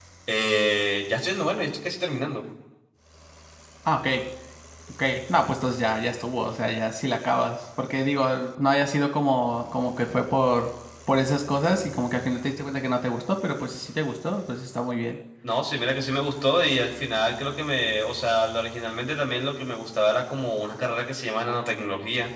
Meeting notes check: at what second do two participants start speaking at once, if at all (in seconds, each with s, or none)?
none